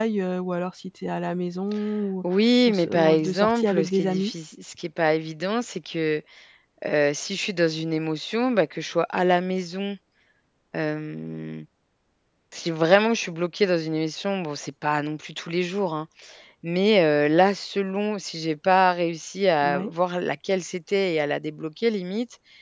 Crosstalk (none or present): present